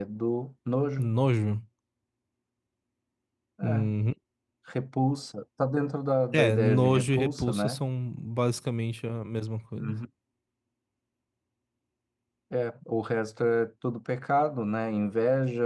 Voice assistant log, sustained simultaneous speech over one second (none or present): present